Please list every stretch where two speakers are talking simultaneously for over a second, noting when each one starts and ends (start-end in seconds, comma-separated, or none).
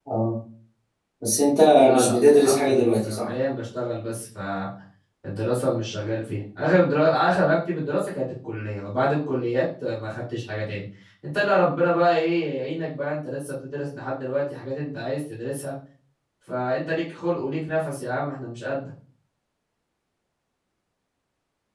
2.0-3.3